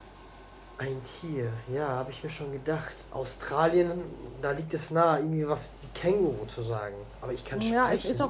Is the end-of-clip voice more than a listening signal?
Yes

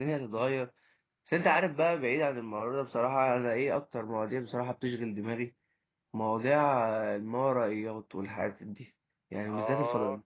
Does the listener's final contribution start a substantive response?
No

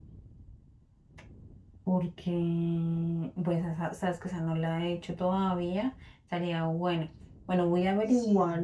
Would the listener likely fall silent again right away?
Yes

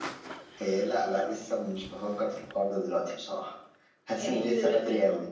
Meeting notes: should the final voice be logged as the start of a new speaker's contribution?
Yes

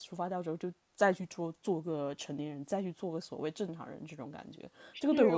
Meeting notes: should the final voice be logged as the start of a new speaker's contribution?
Yes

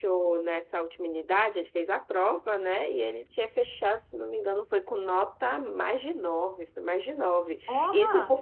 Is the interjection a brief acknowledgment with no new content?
Yes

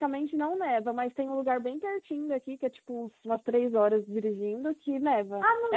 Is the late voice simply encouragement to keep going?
No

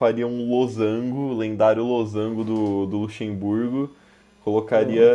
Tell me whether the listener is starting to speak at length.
No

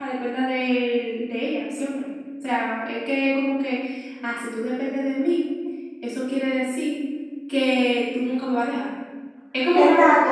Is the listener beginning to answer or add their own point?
Yes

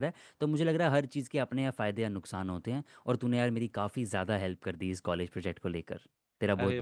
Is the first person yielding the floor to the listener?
Yes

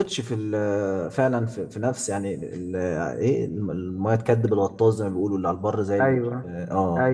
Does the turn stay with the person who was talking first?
No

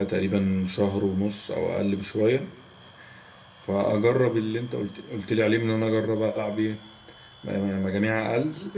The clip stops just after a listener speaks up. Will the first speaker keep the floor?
No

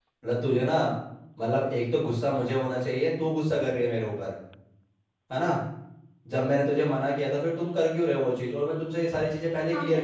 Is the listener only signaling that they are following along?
No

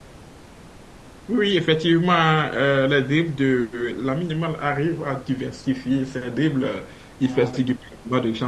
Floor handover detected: No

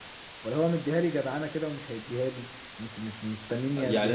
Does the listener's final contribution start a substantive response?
Yes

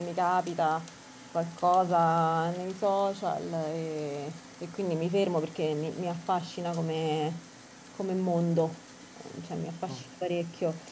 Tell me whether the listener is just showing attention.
Yes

